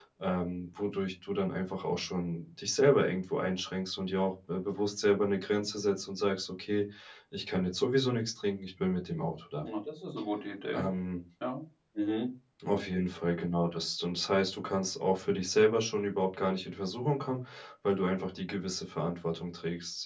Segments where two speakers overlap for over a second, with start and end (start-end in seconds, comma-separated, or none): none